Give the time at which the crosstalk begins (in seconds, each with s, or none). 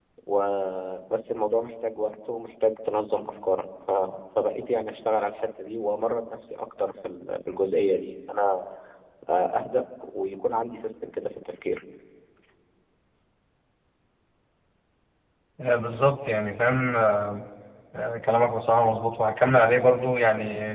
none